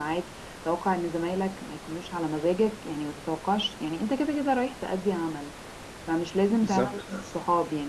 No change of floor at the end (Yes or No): Yes